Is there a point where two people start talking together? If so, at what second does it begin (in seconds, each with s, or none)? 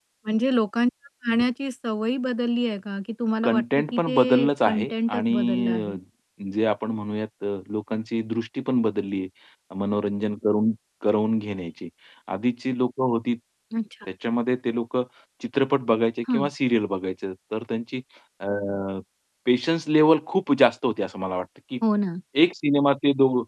3.4 s